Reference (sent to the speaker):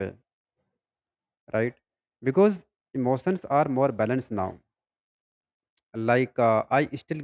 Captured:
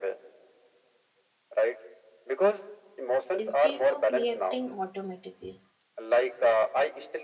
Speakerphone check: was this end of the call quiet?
No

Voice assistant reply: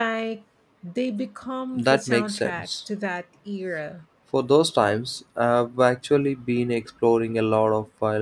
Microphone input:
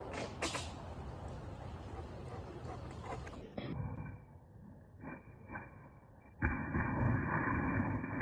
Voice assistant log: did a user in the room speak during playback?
No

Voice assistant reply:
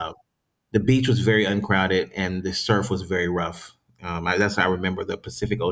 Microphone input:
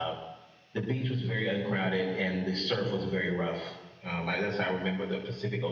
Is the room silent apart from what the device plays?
Yes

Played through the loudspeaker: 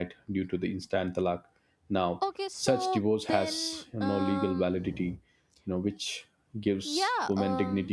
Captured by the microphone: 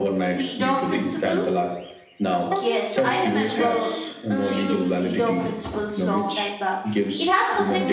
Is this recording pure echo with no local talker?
No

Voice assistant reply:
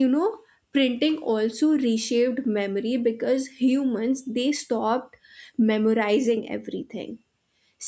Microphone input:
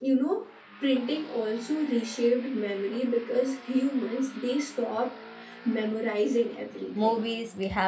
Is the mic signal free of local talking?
No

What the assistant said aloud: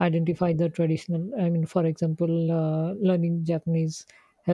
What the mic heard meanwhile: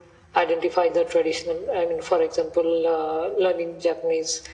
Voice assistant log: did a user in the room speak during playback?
No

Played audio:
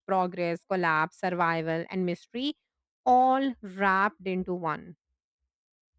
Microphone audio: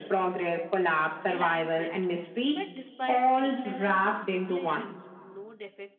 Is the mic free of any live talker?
No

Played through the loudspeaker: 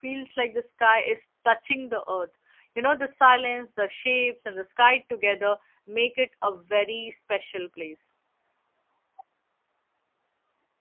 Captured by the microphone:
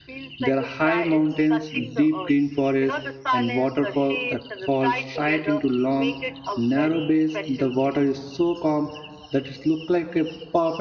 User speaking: Yes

